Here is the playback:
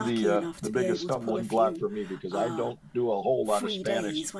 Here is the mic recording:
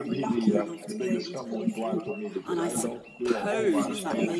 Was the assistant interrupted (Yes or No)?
Yes